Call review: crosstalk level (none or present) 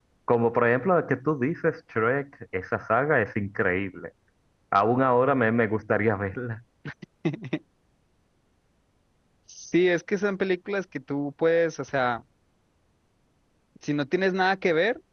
none